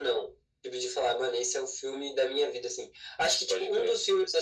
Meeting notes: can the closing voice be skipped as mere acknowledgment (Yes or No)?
Yes